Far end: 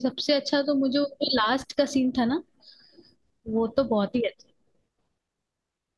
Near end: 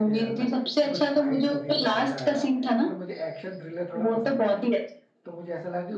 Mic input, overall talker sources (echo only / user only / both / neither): both